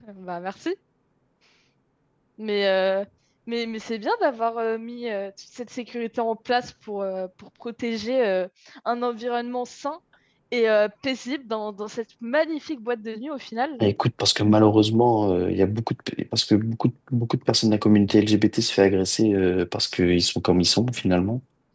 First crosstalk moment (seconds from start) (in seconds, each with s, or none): none